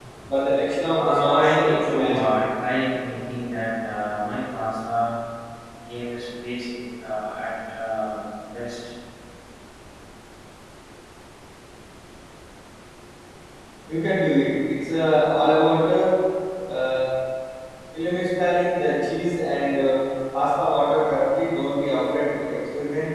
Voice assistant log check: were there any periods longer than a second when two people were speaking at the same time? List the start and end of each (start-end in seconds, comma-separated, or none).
0.9-2.3